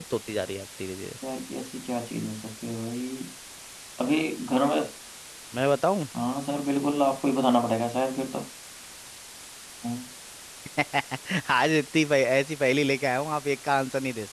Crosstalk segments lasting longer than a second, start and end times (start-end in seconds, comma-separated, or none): none